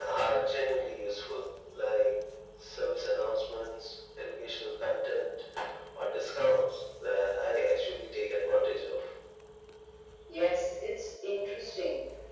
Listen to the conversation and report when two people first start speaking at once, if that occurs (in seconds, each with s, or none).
none